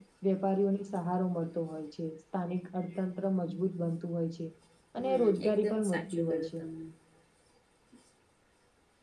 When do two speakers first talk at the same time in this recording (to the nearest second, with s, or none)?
5 s